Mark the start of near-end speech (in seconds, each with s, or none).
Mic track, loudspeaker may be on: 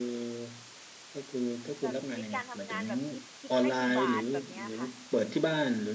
1.8 s